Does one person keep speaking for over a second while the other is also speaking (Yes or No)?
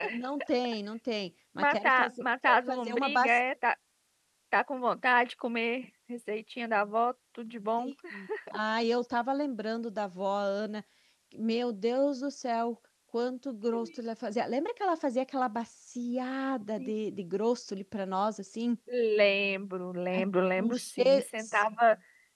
Yes